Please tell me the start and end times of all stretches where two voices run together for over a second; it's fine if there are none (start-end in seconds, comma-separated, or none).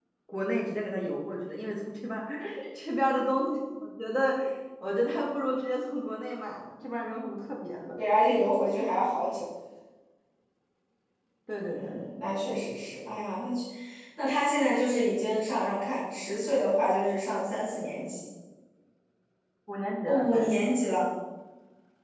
none